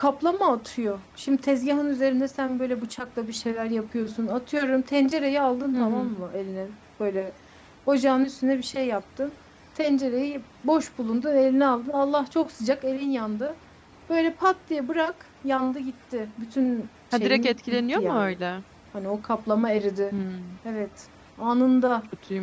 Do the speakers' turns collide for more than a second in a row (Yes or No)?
Yes